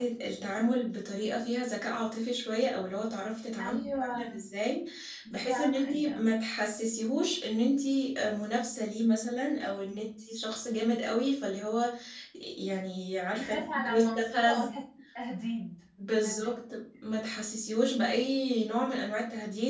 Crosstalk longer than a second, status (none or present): present